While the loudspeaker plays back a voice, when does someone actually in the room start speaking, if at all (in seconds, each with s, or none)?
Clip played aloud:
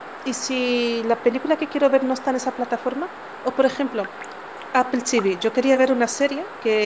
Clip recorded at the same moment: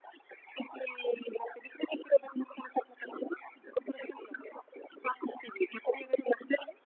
none